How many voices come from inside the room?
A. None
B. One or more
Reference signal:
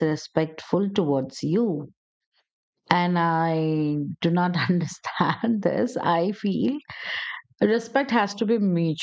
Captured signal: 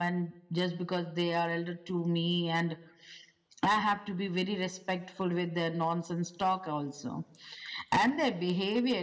B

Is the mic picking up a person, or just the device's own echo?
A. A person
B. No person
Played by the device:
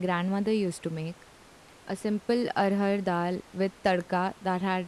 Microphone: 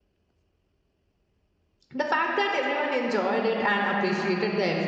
A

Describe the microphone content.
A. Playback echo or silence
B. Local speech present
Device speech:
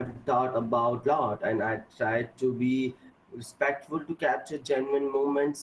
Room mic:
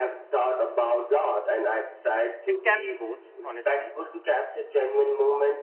B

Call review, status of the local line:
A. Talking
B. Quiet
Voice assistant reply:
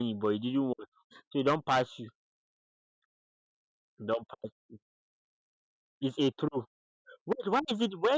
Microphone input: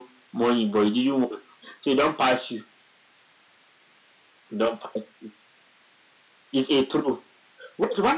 B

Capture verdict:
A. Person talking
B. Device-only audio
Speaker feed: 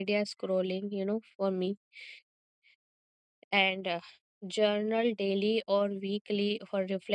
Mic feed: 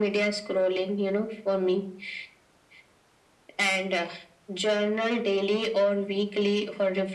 B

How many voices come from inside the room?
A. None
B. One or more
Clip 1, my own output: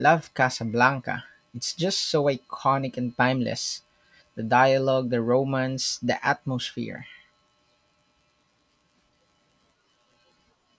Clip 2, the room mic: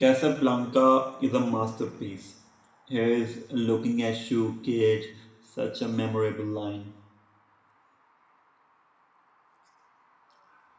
B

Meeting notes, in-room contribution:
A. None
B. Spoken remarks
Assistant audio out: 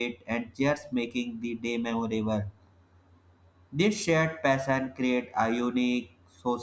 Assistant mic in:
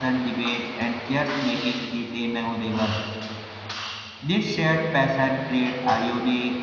A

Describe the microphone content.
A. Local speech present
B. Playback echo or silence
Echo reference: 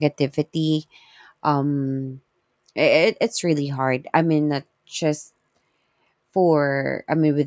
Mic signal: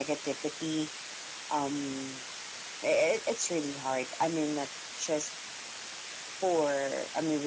B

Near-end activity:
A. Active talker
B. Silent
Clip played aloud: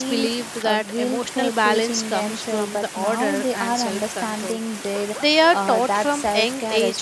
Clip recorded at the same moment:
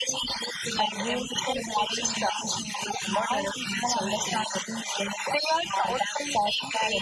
B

